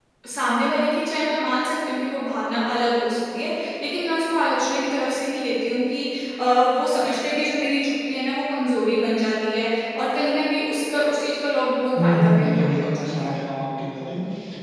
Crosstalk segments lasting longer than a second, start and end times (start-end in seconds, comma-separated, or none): 12.0-13.3